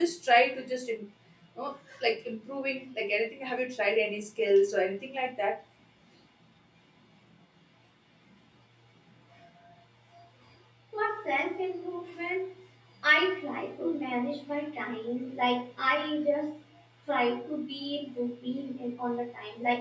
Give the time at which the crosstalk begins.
none

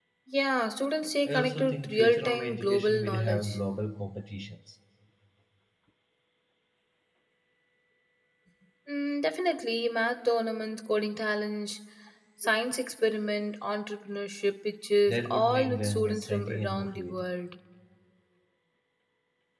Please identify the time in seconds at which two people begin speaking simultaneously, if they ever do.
1.3 s

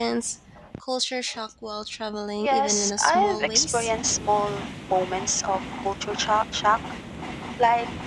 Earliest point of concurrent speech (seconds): 2.4 s

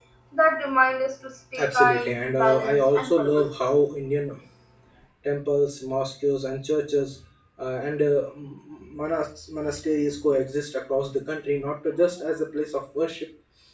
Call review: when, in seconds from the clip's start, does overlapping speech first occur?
1.5 s

